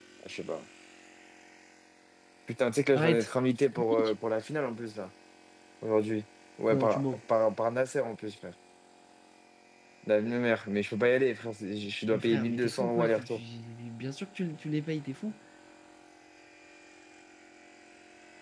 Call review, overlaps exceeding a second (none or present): present